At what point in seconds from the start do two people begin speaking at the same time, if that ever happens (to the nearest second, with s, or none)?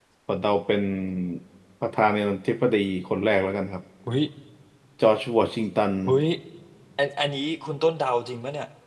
none